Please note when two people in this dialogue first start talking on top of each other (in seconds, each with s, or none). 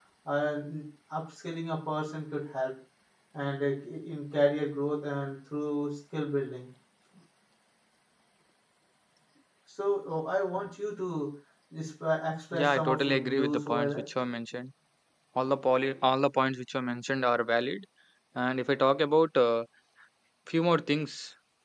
12.5 s